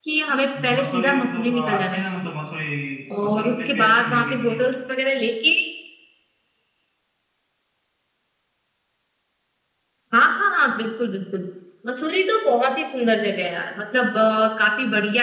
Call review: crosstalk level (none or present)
present